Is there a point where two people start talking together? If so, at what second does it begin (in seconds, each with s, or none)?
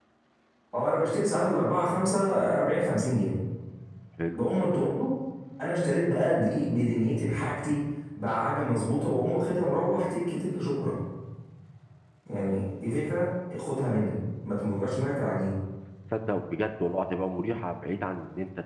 none